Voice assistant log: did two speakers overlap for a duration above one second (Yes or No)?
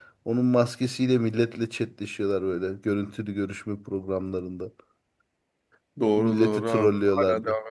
Yes